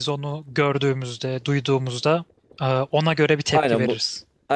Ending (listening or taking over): taking over